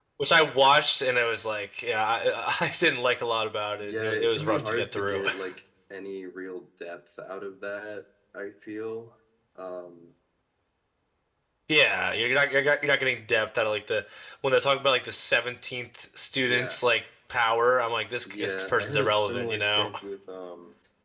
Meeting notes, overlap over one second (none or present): present